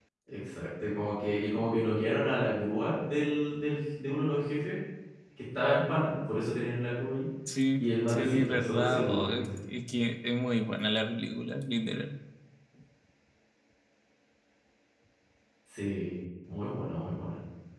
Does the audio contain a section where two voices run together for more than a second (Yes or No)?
Yes